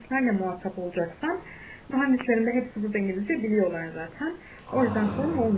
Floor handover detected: No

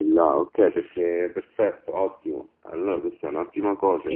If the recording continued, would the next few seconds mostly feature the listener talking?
Yes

